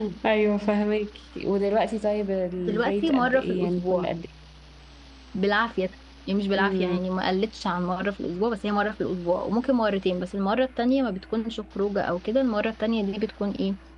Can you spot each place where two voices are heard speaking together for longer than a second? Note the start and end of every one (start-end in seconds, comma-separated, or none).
2.6-4.1